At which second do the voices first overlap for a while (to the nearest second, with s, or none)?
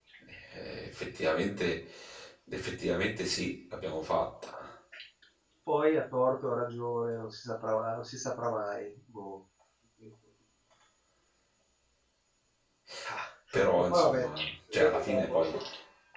14 s